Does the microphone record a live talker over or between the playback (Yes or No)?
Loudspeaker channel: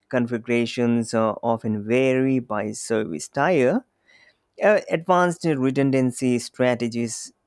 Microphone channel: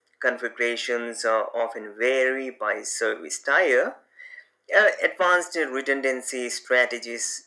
No